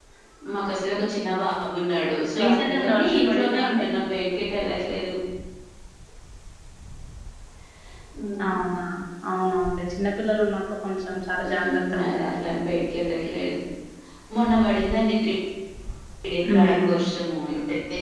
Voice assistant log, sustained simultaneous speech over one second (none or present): present